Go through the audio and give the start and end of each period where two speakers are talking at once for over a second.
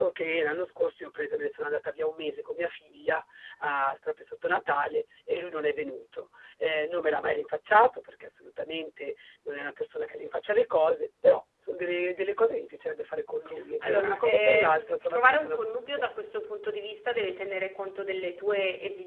13.8-16.0

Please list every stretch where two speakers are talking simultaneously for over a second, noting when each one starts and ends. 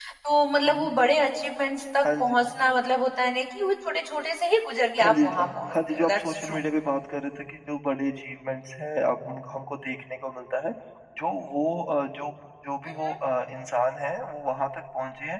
5.0-6.6

